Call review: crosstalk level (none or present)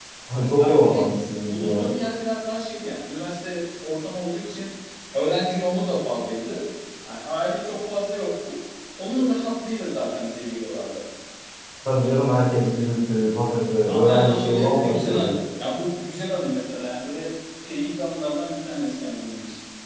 present